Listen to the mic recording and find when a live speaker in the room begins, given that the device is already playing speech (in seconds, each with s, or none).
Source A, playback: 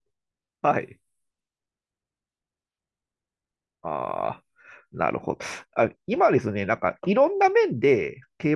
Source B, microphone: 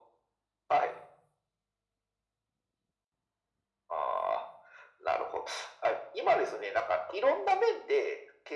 none